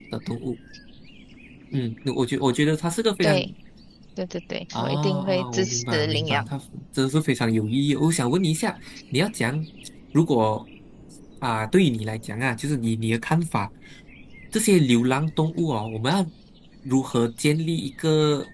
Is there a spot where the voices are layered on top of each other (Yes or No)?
Yes